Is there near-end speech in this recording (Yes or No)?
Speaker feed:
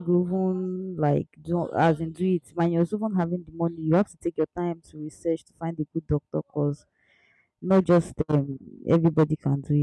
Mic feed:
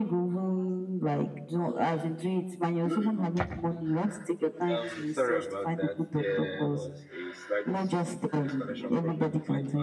Yes